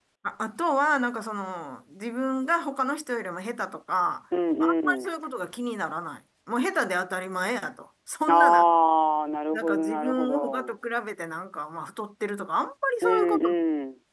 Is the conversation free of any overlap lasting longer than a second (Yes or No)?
No